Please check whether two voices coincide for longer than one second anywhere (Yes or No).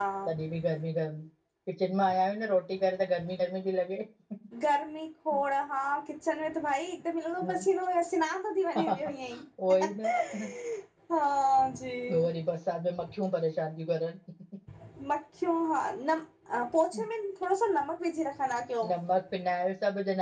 No